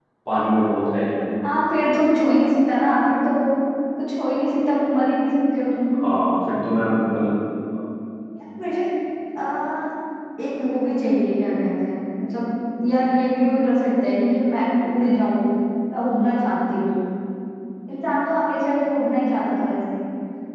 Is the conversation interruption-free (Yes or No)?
Yes